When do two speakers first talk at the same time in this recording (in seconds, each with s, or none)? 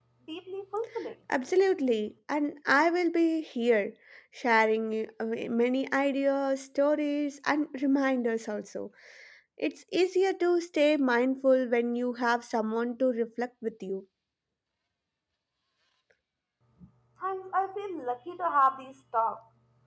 none